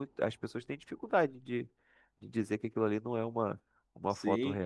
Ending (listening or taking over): taking over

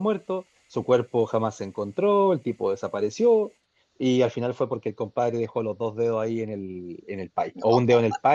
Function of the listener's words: listening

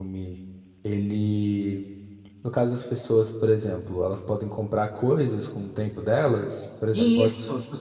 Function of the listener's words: taking over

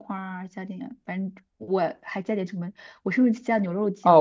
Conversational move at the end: taking over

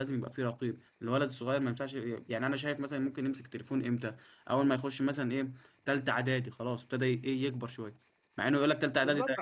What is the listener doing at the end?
taking over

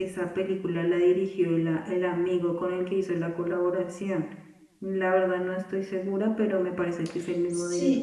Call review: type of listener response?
taking over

